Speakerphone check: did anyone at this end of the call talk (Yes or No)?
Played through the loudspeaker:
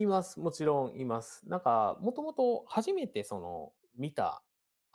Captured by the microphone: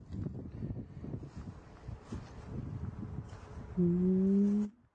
Yes